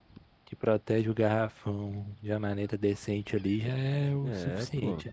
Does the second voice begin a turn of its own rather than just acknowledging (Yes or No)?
Yes